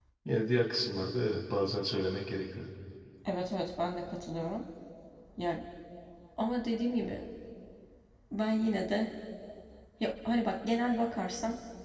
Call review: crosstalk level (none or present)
none